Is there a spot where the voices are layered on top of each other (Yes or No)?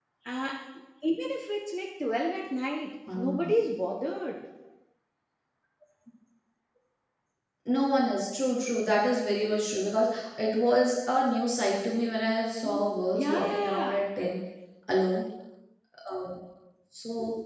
Yes